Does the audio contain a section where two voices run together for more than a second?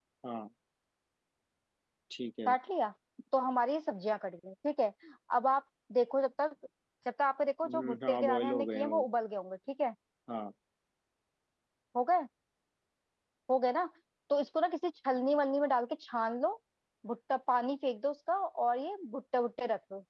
Yes, from 7.6 s

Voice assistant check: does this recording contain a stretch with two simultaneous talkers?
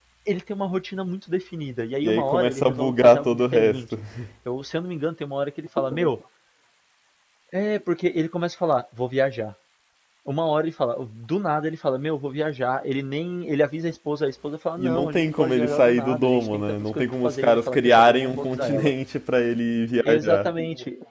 Yes, from 2.0 s

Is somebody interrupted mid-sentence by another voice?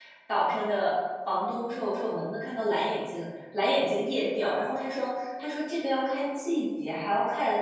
No

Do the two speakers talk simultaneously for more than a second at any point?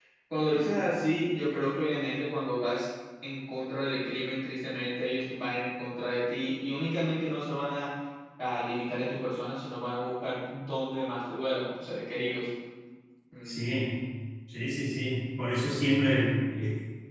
No

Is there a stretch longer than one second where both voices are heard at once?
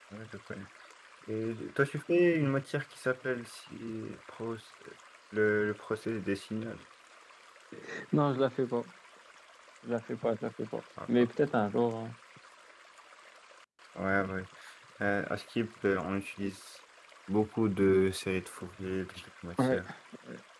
No

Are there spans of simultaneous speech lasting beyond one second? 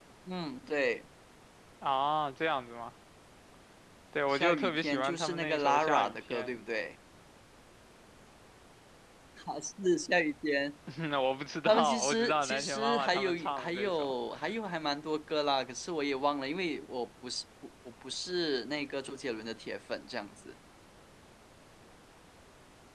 Yes, from 4.3 s

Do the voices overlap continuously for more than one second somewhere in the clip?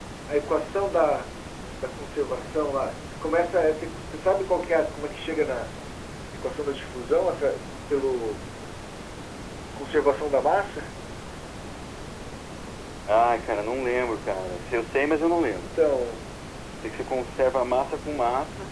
No

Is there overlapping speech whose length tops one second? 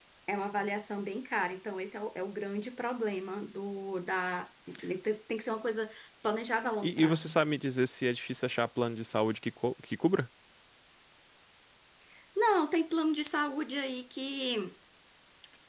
No

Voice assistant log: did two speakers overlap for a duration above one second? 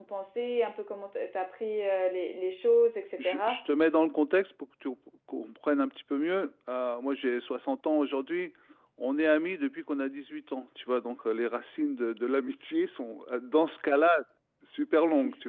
No

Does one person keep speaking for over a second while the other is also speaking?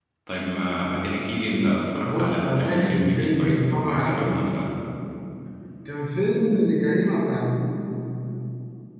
Yes, from 2.0 s

